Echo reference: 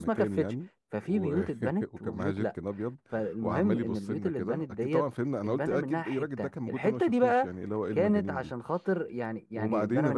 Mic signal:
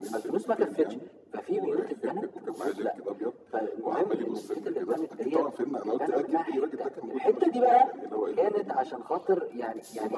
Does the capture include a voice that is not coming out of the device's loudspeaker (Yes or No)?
No